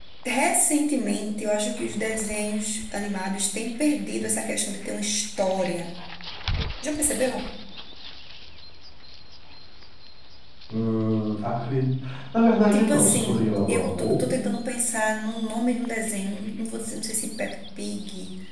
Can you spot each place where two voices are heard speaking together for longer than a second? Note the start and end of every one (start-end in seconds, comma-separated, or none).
12.7-14.4